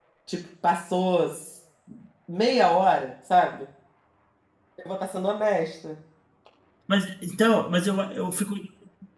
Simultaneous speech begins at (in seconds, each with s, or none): none